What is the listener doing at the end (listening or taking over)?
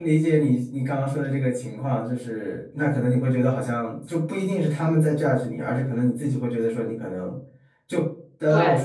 listening